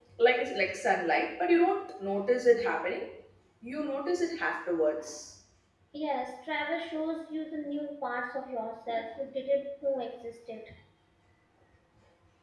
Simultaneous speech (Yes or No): No